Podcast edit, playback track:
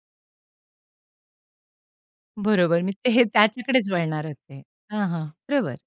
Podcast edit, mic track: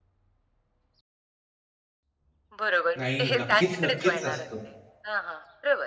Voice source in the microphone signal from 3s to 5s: both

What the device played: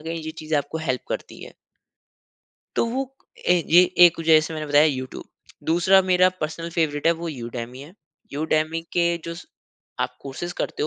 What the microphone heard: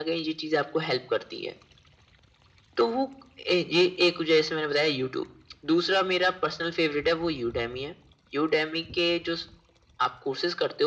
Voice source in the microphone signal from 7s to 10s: echo only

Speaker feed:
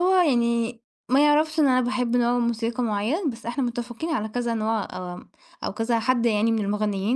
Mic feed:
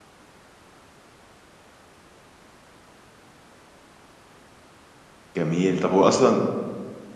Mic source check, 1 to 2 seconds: neither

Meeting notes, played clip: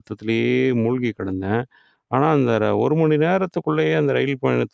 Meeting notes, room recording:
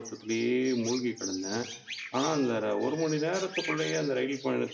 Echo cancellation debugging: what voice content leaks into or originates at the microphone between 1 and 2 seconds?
echo only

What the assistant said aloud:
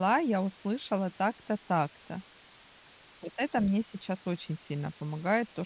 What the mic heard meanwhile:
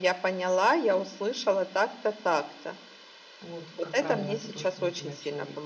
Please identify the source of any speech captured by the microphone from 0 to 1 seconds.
echo only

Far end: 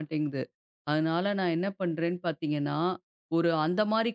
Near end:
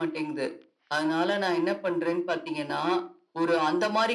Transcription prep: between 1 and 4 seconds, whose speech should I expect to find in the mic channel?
echo only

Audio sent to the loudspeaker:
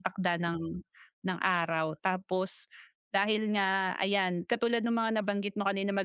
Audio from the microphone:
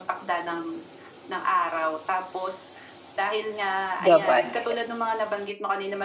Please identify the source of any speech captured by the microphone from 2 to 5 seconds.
both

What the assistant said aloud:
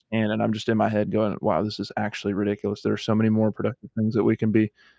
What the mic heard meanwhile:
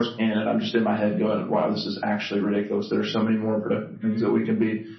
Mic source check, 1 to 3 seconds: echo only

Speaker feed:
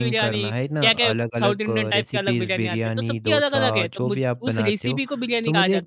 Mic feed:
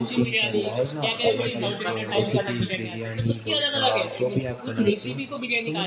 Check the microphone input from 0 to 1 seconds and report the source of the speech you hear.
echo only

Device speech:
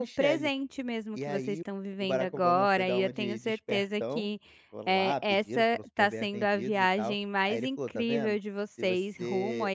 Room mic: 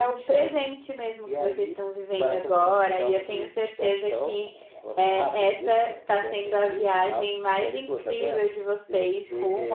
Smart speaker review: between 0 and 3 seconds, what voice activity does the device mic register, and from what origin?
echo only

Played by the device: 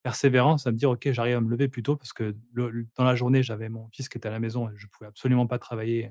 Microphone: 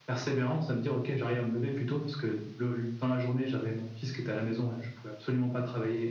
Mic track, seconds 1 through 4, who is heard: echo only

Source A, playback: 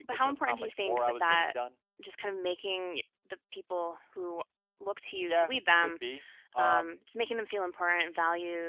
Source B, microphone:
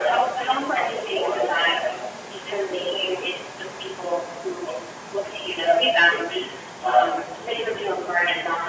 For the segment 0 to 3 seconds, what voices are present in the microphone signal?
echo only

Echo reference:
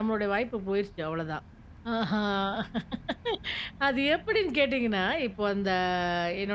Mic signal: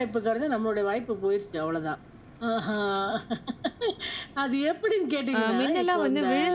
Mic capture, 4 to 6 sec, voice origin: both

